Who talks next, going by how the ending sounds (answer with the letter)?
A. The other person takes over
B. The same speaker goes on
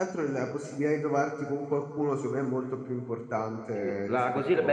A